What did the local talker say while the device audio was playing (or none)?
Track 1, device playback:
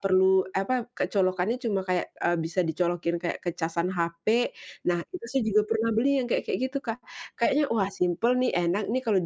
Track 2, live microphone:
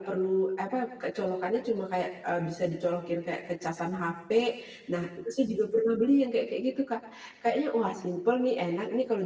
none